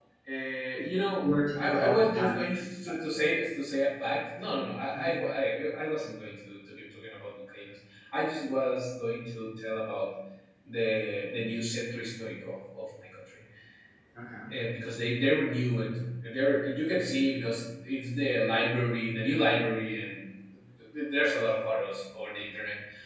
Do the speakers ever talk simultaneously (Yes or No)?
Yes